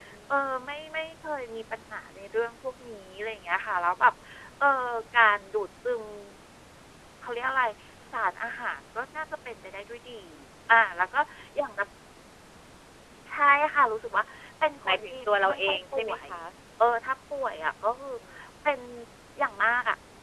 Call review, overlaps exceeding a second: present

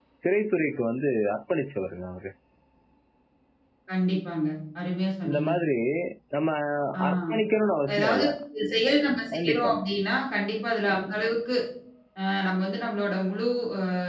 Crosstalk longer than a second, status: none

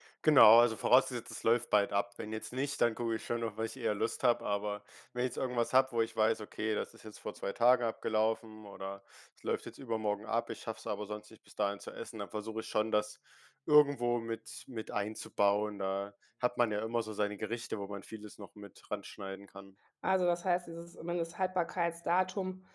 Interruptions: none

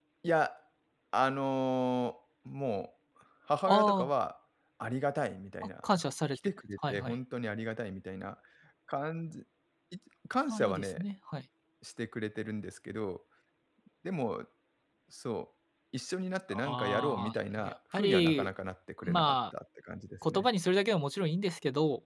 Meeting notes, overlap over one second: present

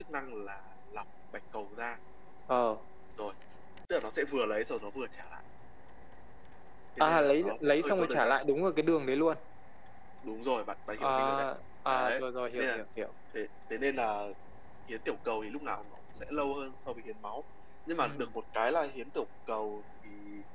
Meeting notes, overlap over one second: present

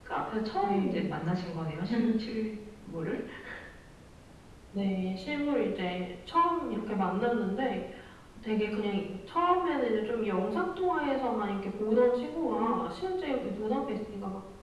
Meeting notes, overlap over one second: none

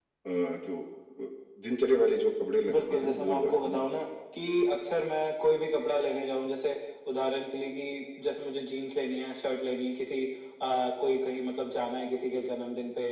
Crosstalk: present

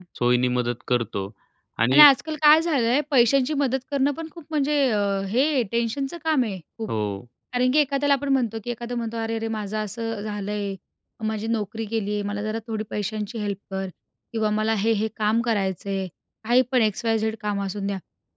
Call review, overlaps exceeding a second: none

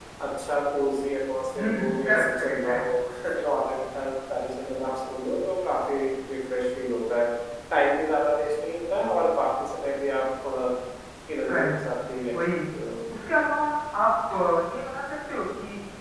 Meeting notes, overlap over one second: present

